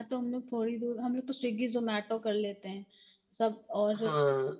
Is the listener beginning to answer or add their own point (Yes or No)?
No